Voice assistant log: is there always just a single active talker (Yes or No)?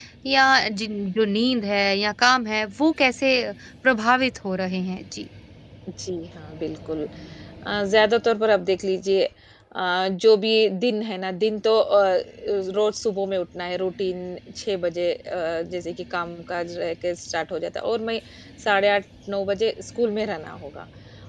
Yes